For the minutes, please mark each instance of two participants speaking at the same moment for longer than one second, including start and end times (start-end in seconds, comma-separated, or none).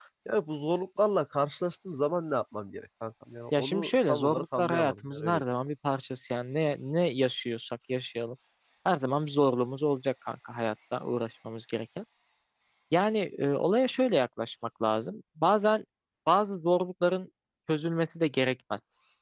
3.5-5.4